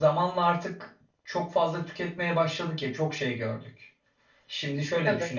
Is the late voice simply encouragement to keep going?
Yes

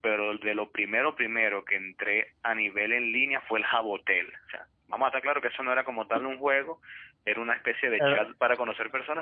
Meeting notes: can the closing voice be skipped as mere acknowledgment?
Yes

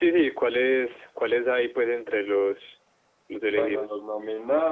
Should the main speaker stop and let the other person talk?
Yes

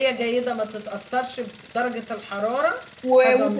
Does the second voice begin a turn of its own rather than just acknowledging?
Yes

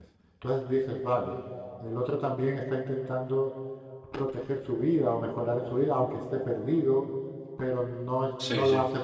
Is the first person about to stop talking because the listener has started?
No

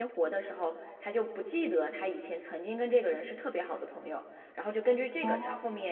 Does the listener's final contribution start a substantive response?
No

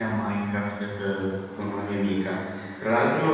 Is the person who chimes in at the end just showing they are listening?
Yes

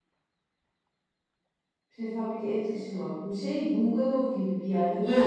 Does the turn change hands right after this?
Yes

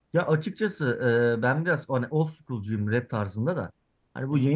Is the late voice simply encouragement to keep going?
Yes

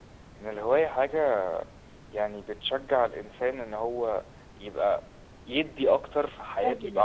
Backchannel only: Yes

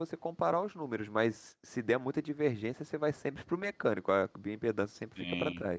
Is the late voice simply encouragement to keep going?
No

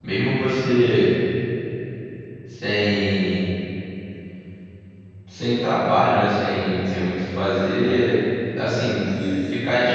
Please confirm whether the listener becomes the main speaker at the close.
No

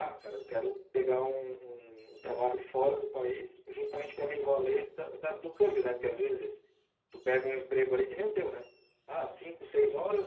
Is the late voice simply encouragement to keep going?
Yes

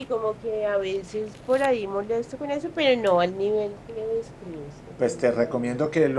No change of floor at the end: No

